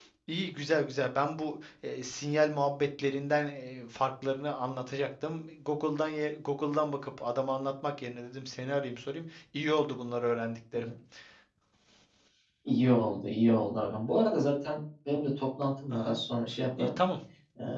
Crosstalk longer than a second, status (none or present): none